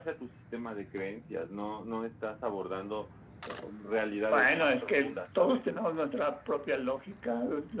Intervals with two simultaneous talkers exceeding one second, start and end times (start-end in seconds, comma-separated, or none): 4.3-5.6